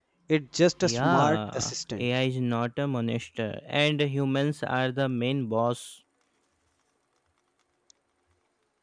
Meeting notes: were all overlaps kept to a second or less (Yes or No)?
No